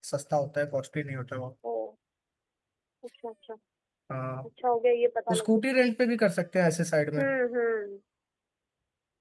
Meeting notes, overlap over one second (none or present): none